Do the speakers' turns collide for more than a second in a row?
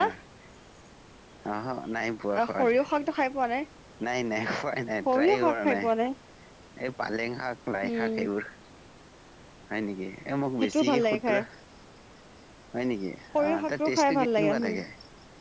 Yes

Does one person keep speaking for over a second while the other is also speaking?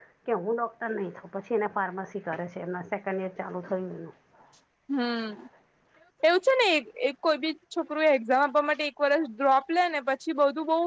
No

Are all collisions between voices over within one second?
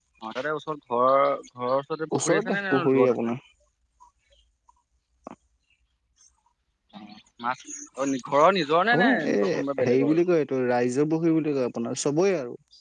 No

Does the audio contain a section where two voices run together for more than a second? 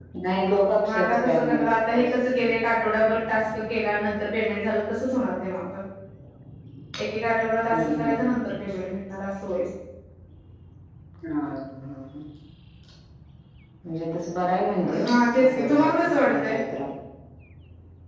Yes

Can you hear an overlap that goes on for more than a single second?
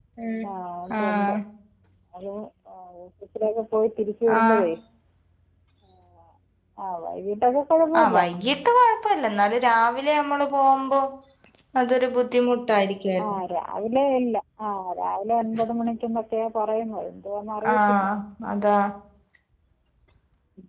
No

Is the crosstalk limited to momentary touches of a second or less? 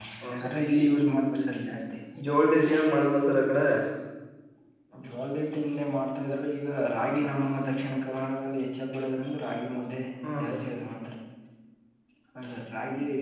Yes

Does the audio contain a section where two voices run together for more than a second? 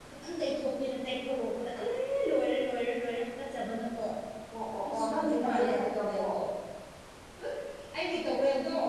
Yes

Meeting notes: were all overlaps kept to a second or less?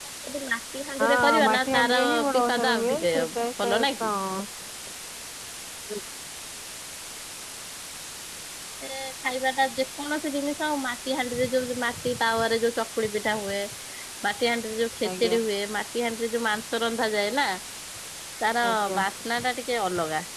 No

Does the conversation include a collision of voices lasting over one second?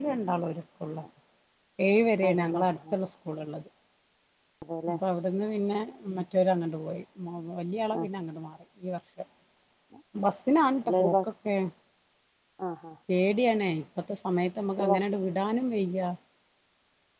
No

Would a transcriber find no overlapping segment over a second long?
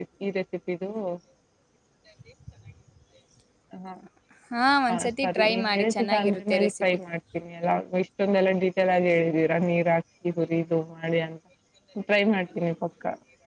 No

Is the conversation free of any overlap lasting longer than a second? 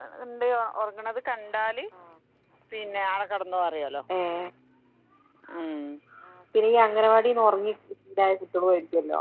Yes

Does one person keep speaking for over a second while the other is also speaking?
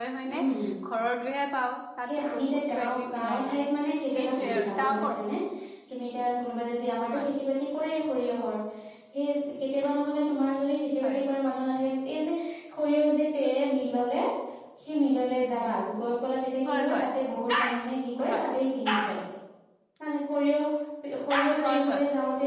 Yes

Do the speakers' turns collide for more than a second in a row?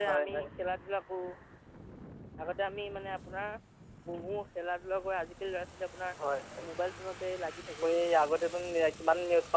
No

